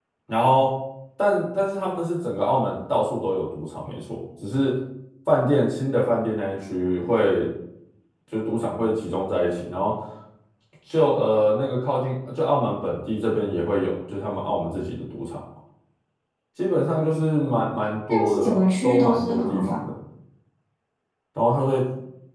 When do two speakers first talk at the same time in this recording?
18.1 s

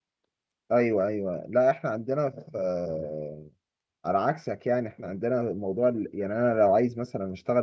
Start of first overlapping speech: none

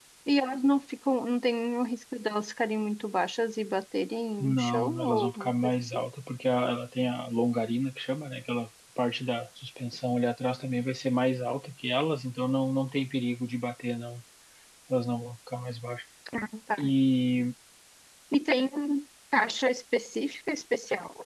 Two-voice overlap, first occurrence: 4.4 s

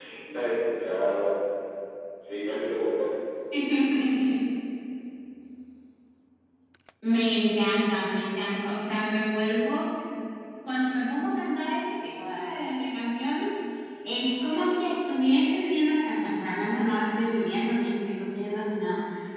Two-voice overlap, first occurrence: none

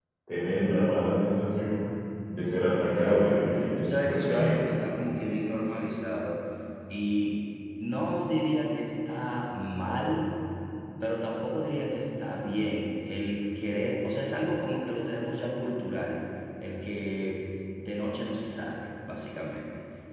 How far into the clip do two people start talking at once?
3.0 s

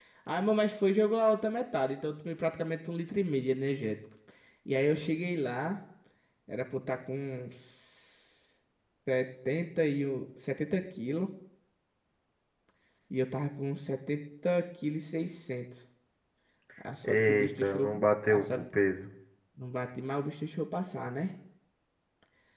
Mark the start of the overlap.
17.0 s

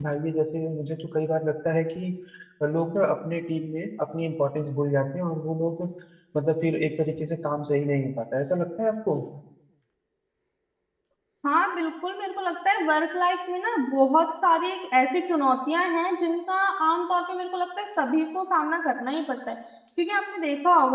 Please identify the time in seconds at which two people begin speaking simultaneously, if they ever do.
none

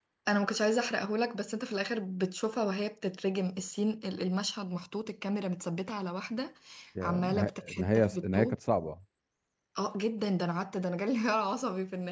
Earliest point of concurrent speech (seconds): 7.0 s

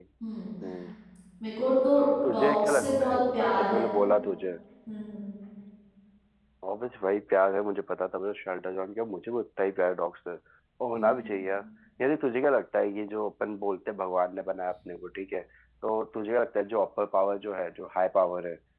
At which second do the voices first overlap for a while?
2.2 s

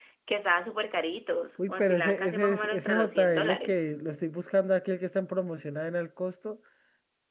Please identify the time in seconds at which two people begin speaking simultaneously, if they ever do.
1.6 s

